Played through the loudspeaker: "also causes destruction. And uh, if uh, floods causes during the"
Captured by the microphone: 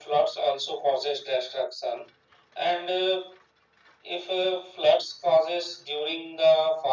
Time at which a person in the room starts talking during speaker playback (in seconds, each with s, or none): none